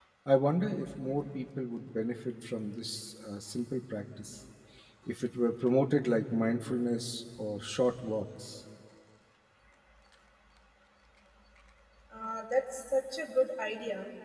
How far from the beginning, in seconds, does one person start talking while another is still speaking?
none

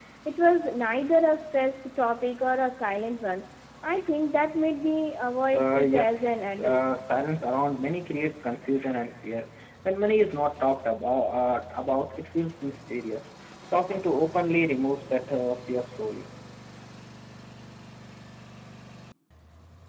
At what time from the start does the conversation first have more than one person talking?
5.5 s

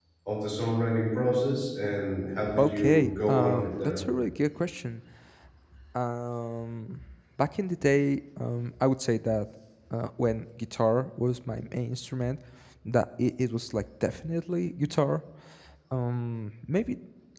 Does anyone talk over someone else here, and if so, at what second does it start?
2.5 s

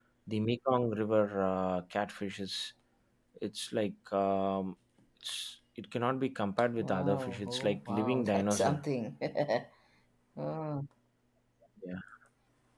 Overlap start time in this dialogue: 6.8 s

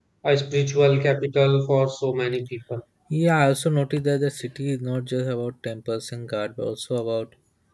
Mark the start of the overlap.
none

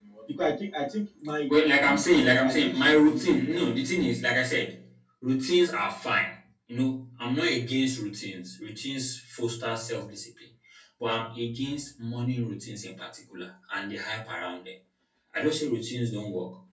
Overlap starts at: 1.5 s

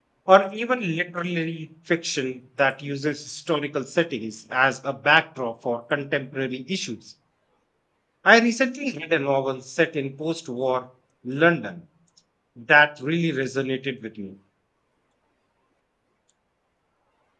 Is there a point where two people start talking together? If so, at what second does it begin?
none

